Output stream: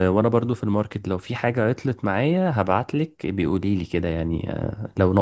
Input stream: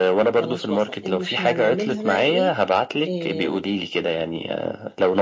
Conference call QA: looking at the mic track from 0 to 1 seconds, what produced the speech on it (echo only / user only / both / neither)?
both